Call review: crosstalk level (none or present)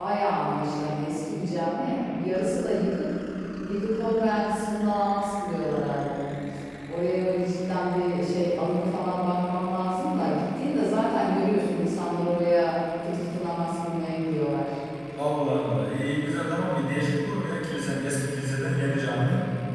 none